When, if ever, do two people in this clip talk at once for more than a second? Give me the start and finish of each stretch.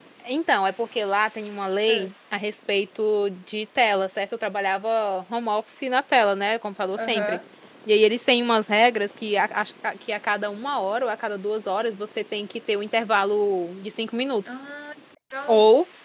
none

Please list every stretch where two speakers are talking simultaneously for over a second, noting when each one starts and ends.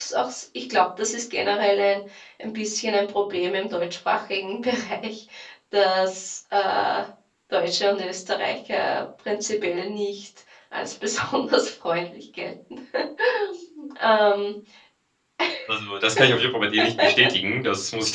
none

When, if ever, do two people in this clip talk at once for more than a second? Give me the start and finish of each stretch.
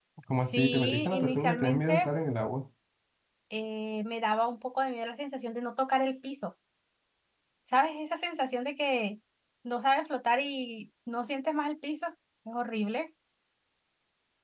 0.5-2.1

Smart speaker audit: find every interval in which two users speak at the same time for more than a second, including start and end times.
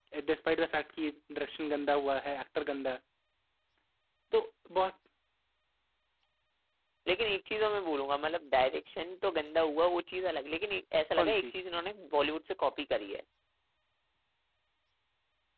none

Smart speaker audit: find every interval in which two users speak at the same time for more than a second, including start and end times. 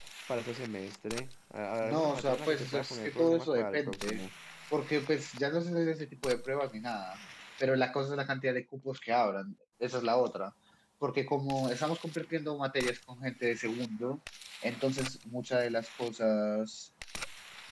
1.8-4.2

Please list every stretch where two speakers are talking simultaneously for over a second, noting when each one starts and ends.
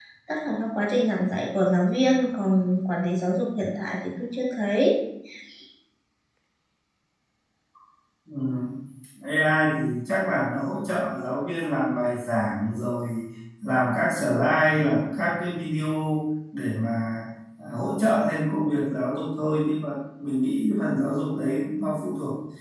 none

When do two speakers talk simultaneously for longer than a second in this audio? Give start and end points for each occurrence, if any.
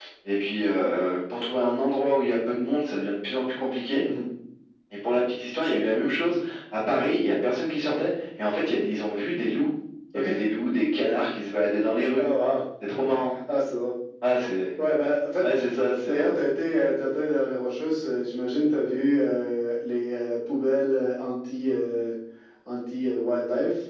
none

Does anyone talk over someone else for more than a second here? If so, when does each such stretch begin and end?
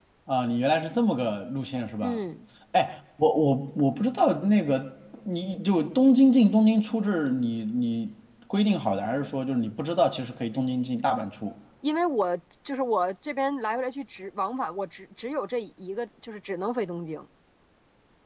none

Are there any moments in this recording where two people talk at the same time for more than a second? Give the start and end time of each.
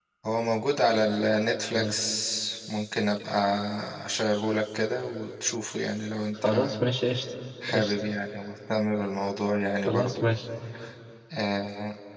none

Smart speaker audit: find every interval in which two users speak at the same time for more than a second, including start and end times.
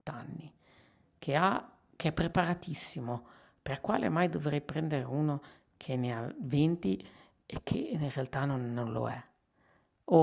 none

